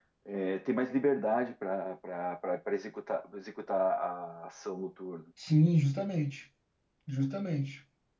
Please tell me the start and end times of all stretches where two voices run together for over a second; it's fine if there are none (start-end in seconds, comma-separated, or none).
none